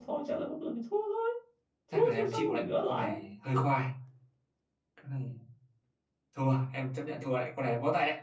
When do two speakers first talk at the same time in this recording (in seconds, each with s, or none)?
1.9 s